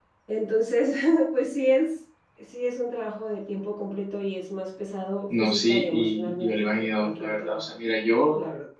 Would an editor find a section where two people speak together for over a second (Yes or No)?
Yes